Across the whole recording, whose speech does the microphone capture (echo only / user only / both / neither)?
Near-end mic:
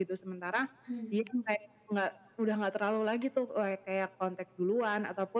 both